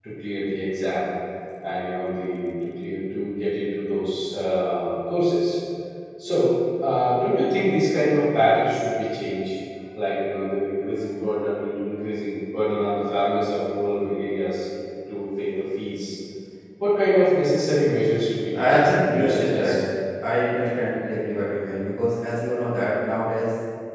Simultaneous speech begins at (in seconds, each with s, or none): 18.5 s